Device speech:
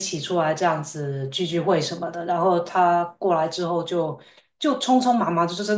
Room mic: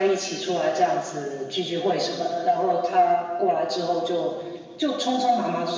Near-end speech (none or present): none